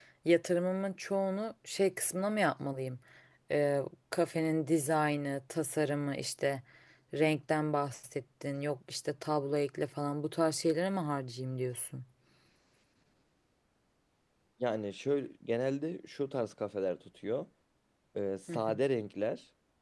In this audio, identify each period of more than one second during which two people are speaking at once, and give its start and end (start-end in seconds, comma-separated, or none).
none